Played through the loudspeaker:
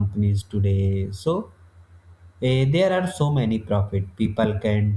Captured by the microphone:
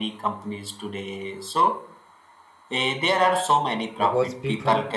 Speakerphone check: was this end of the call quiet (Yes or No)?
No